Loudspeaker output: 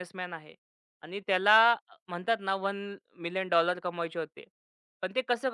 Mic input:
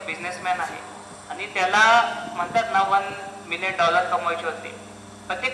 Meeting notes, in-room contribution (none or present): none